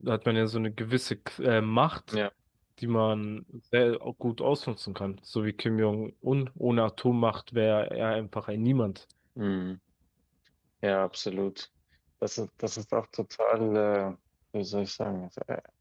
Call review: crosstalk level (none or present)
none